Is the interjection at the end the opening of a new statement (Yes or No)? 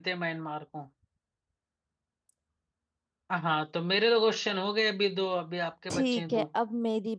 Yes